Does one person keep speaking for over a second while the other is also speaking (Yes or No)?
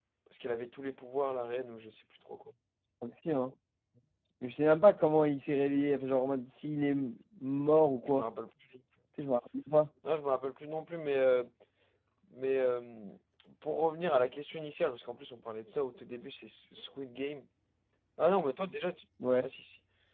No